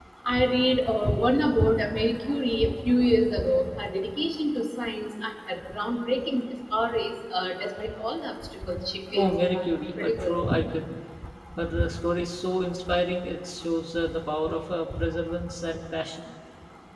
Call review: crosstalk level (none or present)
present